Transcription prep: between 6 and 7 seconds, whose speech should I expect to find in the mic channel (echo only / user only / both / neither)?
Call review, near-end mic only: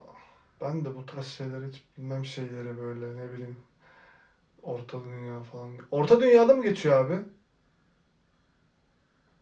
echo only